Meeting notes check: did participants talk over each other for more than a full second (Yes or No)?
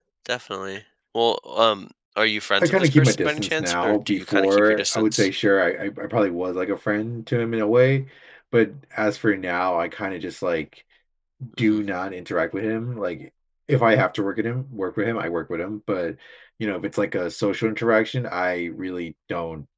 Yes